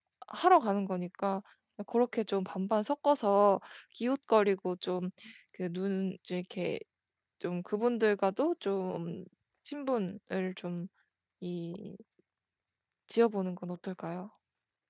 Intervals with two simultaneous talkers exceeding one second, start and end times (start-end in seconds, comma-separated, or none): none